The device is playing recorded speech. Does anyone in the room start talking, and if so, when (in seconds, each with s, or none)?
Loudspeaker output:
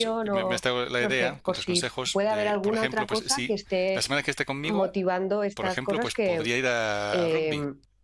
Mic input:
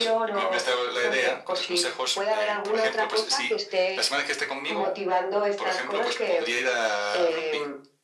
none